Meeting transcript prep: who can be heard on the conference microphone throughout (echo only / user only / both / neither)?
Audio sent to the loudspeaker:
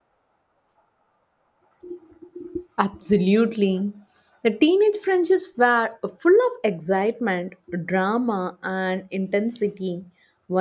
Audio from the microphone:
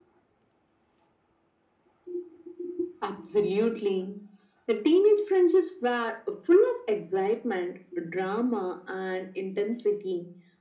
echo only